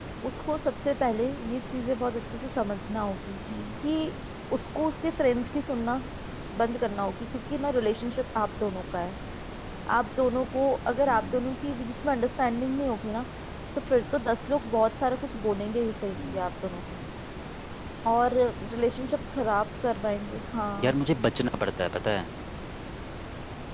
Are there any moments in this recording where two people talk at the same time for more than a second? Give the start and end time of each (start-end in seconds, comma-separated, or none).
none